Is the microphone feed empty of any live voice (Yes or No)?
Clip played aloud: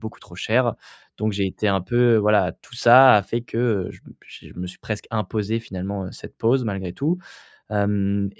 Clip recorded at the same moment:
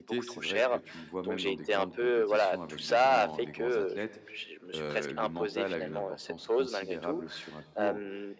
No